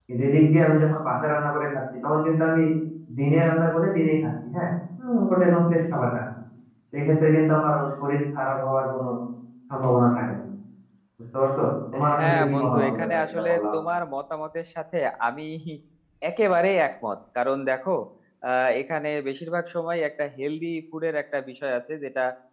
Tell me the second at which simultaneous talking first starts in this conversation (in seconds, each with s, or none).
11.9 s